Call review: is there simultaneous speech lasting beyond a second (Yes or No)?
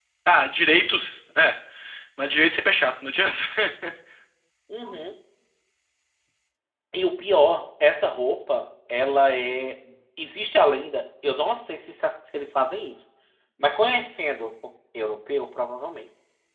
No